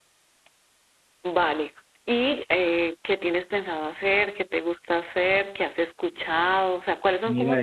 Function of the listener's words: listening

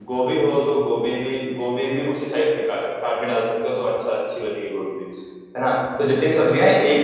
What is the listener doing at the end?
listening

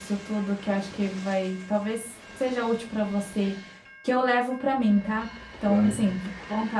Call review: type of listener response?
listening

